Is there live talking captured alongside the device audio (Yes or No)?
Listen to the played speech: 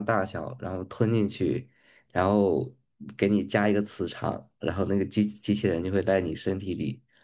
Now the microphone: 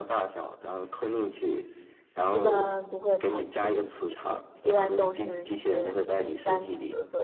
Yes